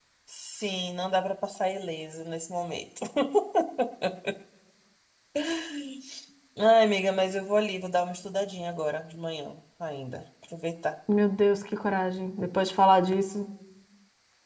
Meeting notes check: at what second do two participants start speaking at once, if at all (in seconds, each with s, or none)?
none